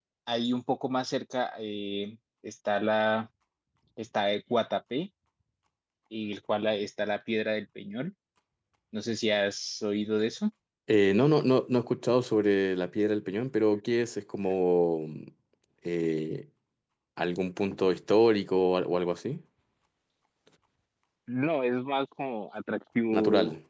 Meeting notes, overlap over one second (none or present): none